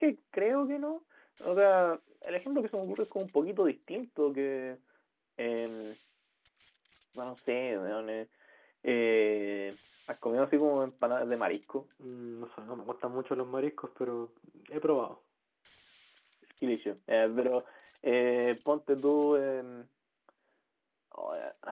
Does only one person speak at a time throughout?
Yes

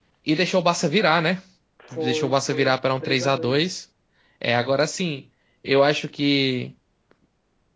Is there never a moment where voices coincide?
No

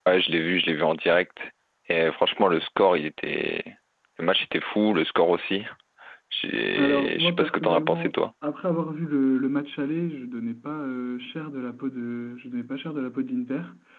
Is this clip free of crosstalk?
No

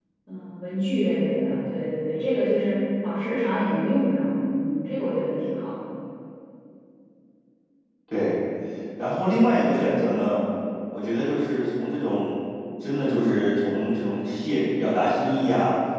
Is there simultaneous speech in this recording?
No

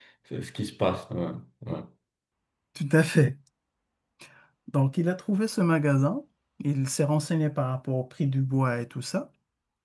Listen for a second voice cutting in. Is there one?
No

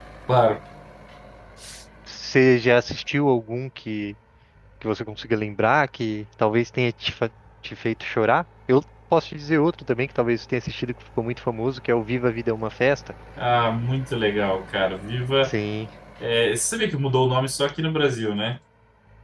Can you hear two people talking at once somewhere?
No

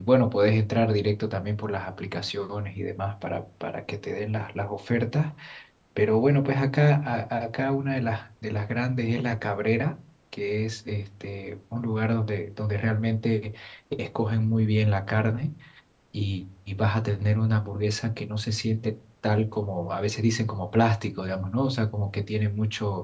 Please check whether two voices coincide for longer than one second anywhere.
No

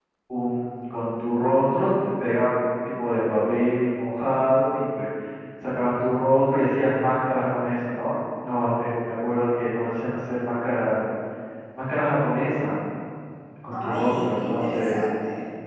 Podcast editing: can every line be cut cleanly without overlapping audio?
No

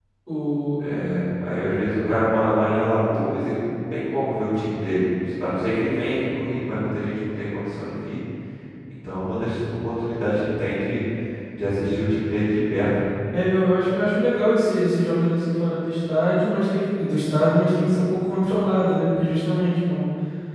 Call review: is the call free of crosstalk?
Yes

